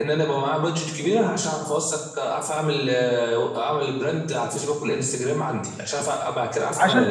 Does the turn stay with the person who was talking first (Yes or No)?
No